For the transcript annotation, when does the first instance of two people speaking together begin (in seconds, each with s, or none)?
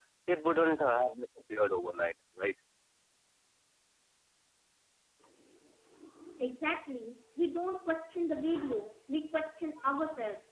none